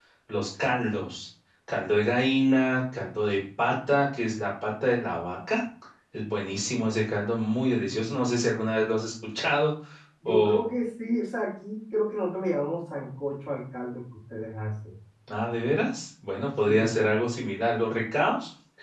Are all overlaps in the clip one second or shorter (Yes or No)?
Yes